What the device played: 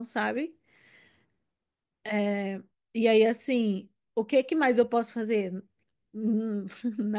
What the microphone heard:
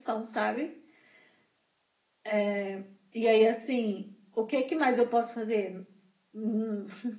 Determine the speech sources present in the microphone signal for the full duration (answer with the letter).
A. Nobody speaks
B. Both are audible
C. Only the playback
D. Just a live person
C